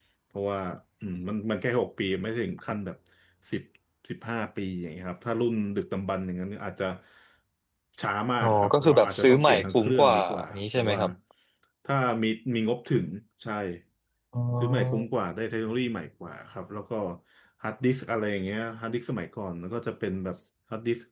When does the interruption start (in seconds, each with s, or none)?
8.4 s